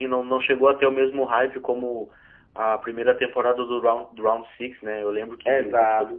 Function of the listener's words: taking over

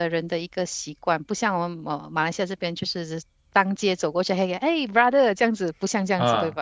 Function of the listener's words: taking over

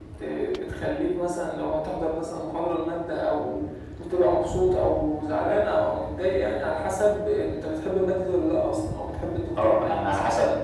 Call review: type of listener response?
taking over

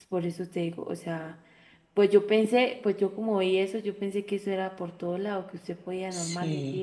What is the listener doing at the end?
listening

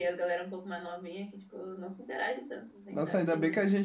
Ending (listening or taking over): taking over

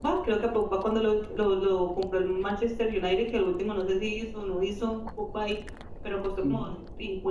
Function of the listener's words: listening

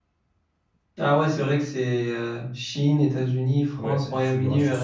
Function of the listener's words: taking over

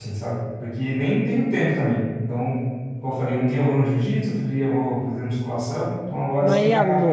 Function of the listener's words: taking over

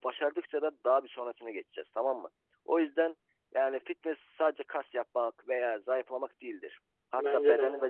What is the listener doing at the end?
listening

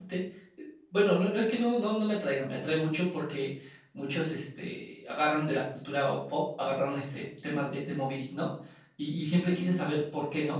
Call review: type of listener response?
listening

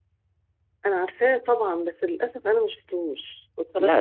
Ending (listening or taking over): taking over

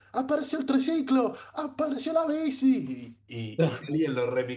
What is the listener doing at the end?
listening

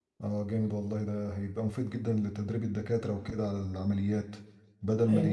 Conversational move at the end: listening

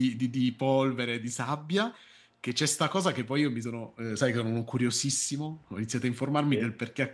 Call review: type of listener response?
listening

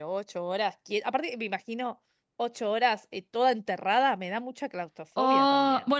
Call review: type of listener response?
taking over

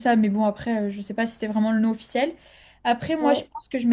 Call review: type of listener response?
listening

